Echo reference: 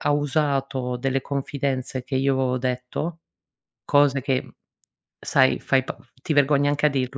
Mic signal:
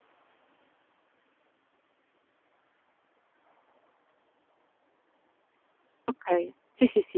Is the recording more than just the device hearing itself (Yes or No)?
Yes